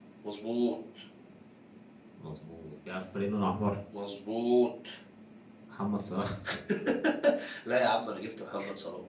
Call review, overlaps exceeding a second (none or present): none